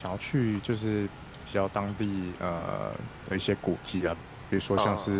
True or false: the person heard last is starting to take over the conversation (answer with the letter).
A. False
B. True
A